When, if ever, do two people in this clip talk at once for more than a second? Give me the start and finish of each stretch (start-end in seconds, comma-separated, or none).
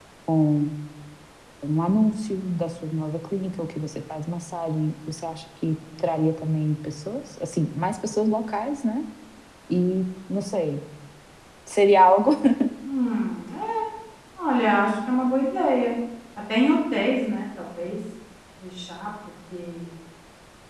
none